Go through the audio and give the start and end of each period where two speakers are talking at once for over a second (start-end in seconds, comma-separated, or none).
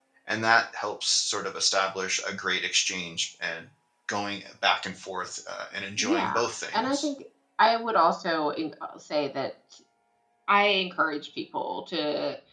none